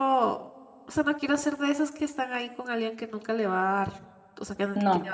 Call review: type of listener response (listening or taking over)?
listening